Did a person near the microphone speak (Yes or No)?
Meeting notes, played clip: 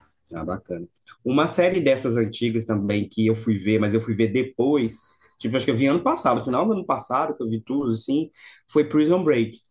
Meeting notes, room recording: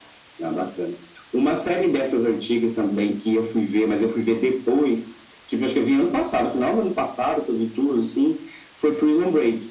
No